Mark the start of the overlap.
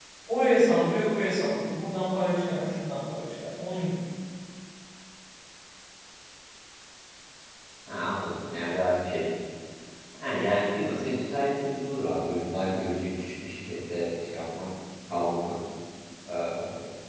none

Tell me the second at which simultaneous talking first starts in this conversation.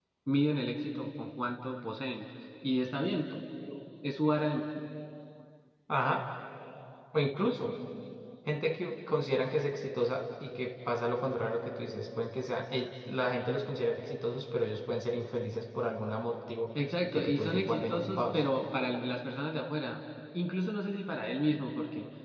17.1 s

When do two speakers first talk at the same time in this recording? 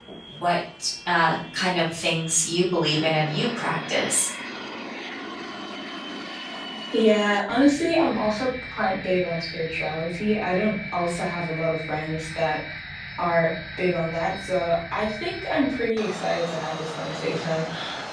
none

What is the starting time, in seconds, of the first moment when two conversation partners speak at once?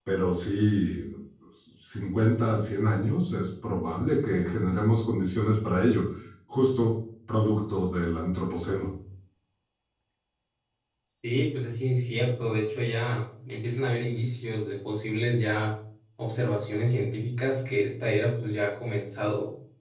none

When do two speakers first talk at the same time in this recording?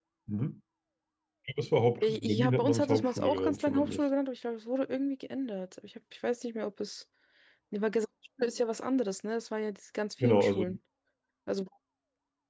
2.0 s

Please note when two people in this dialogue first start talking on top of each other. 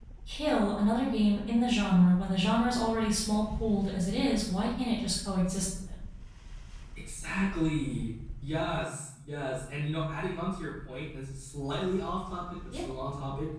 none

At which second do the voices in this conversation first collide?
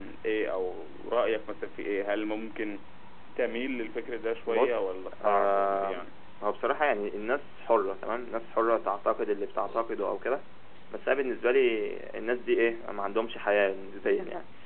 4.5 s

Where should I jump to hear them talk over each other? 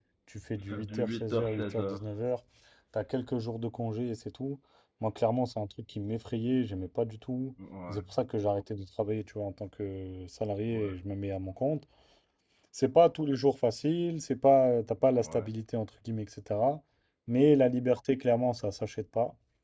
0.6 s

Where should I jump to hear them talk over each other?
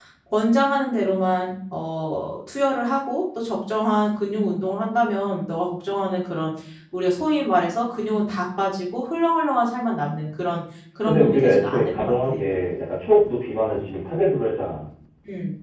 11.0 s

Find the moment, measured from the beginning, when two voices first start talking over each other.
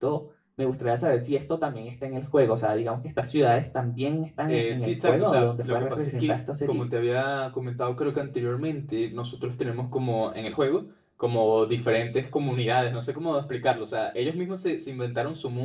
4.5 s

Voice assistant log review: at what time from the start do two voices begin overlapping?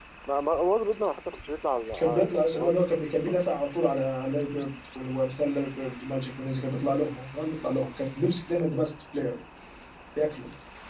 2.2 s

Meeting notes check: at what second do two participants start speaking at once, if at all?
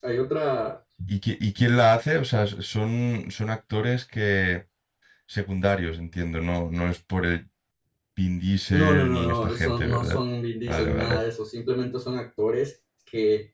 8.7 s

